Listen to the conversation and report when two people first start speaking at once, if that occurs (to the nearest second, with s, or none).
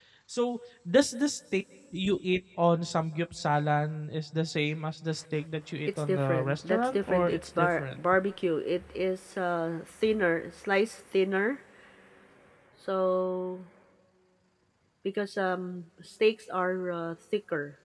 6 s